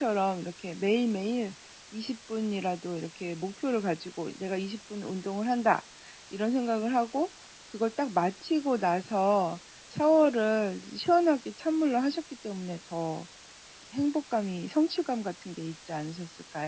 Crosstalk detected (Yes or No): No